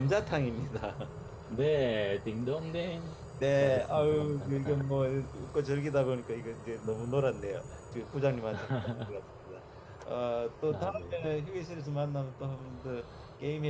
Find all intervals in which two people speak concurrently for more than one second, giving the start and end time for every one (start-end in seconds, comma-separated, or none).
3.6-4.9